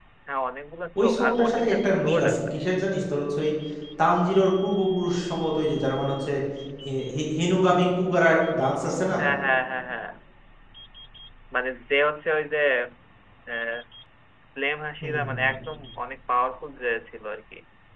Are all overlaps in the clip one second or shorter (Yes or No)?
No